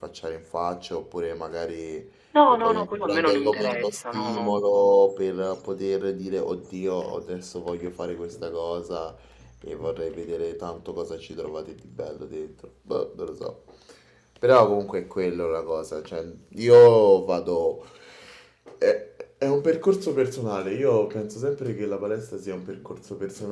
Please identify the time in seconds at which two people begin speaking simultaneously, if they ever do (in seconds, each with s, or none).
2.5 s